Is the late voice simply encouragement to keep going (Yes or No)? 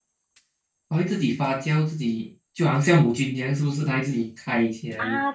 No